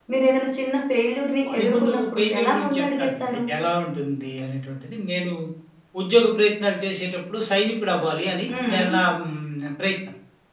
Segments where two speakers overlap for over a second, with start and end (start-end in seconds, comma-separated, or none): 1.5-3.4